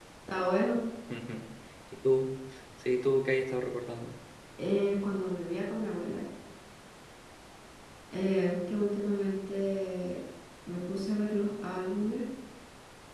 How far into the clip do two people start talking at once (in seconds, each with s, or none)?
none